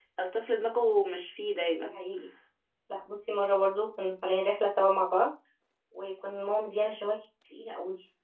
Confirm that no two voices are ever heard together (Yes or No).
Yes